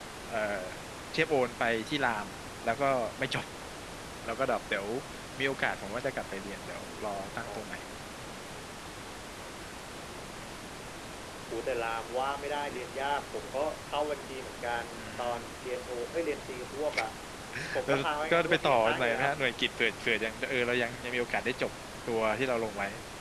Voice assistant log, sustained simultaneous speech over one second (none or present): present